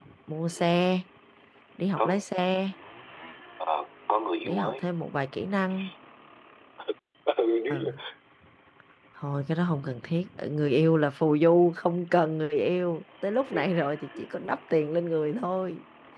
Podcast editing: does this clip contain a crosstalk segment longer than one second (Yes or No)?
No